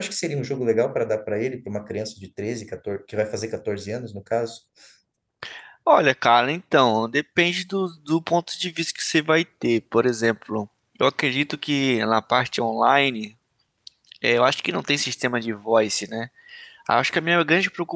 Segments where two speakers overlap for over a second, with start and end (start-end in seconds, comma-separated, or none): none